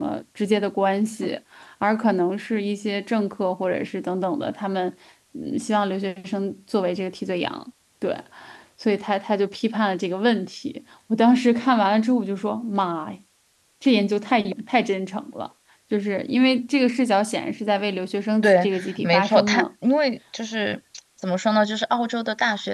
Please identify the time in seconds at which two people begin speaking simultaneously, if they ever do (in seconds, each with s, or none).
18.4 s